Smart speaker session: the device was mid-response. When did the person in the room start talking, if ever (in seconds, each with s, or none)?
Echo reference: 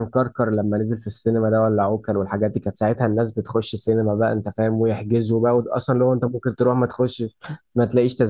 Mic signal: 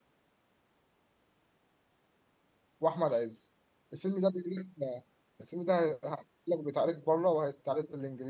2.8 s